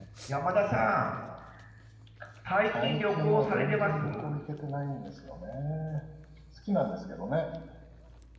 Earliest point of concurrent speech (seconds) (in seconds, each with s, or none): 2.7 s